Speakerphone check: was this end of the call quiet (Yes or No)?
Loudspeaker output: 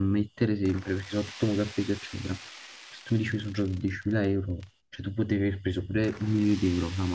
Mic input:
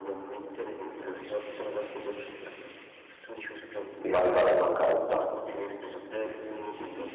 No